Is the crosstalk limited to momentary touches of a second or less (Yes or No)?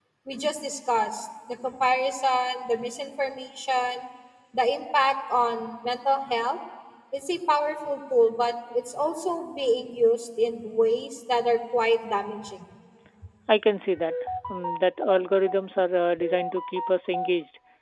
Yes